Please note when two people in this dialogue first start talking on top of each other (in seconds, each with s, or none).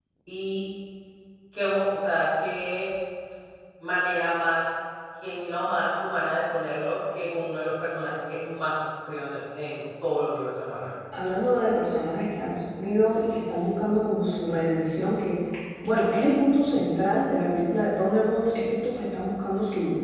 none